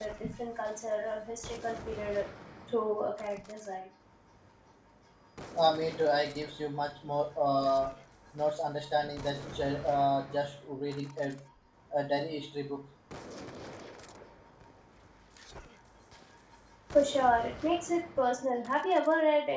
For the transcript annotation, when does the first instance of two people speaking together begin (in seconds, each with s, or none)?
none